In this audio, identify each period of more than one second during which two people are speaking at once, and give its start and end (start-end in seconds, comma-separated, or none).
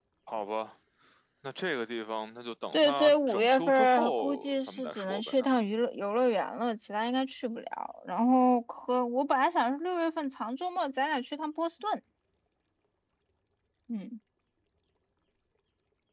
2.7-5.5